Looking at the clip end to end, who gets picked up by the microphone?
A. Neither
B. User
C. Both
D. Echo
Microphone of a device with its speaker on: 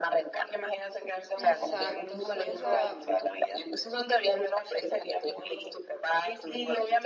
C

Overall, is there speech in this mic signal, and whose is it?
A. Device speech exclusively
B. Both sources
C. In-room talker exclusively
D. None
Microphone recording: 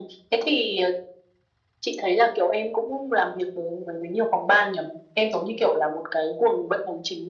A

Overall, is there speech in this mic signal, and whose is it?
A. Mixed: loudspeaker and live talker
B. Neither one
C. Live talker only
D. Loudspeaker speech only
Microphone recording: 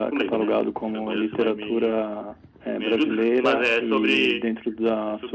D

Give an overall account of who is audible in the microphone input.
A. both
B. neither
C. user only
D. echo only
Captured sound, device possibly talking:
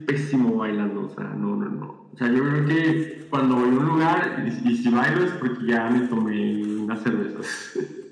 D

